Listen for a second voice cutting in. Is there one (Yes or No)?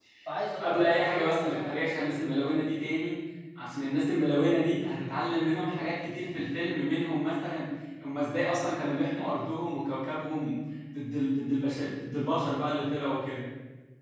Yes